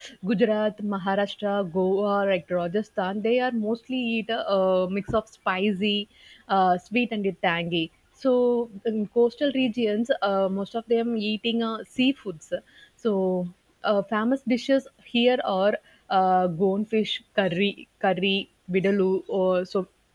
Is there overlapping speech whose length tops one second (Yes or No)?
No